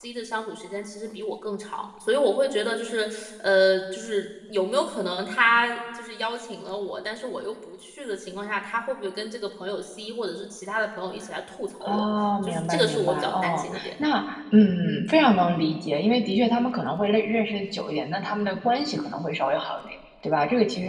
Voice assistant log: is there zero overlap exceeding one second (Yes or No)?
No